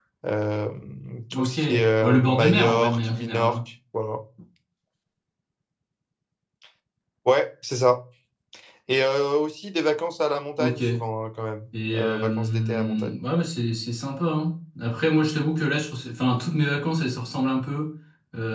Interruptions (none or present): present